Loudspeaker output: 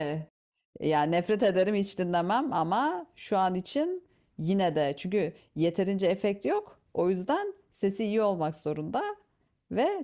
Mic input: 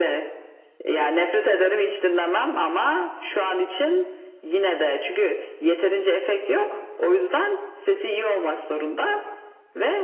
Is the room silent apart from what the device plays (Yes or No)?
Yes